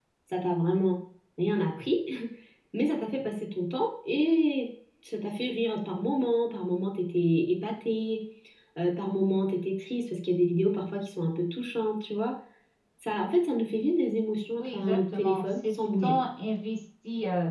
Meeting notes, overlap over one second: present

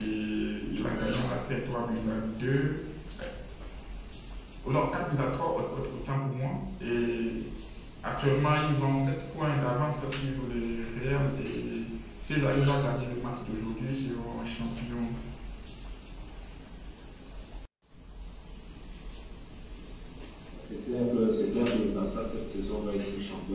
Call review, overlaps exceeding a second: none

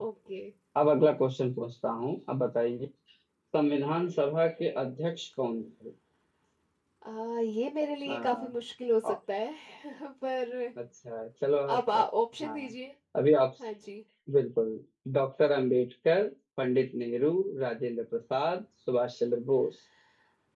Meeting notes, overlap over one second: none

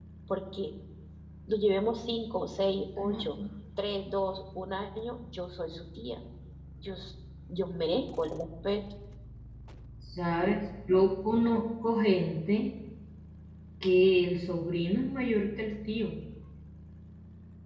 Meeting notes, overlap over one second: none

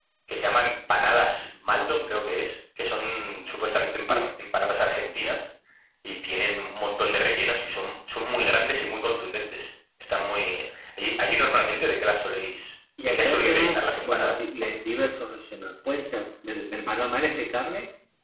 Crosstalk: present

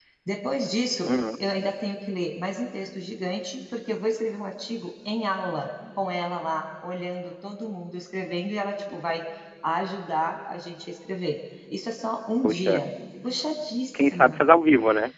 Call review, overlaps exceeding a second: none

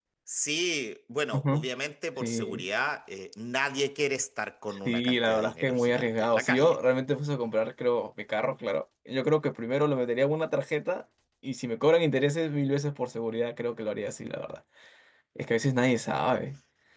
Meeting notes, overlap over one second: present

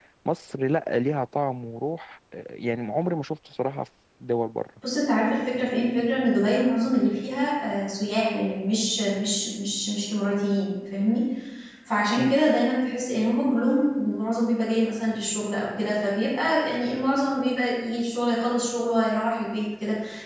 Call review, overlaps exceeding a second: none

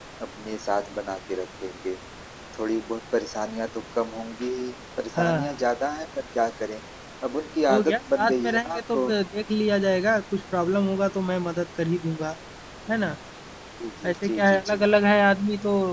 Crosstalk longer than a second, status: present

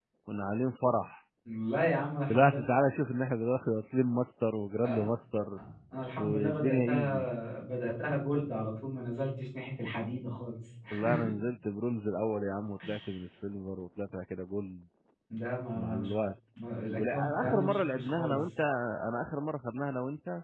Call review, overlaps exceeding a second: present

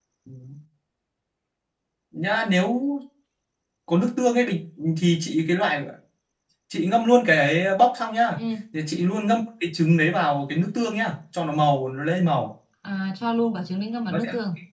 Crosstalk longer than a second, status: none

